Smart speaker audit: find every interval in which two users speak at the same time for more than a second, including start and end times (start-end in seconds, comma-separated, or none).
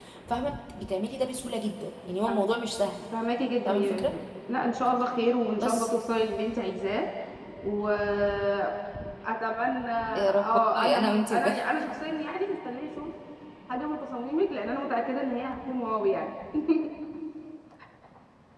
10.2-11.6